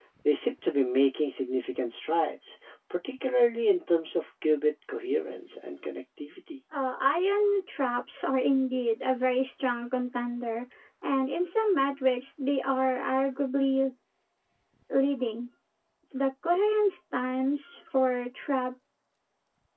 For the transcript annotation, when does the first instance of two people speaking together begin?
none

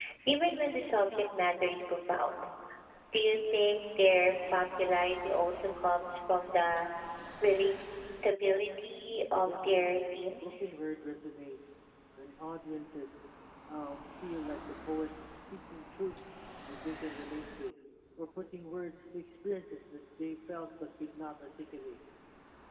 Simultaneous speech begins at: 9 s

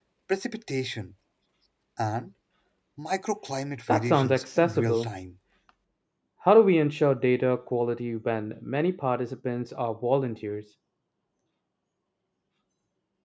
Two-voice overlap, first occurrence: 4 s

